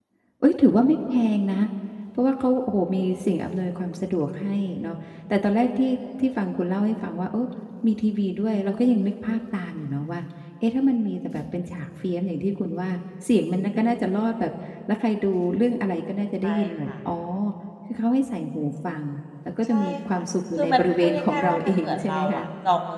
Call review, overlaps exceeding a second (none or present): present